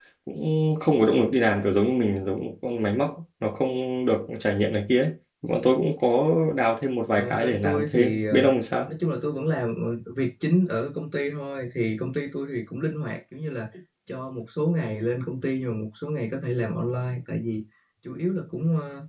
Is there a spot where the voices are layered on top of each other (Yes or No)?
Yes